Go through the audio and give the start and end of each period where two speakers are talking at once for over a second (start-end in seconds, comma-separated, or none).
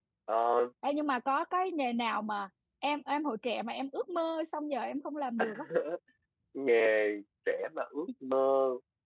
none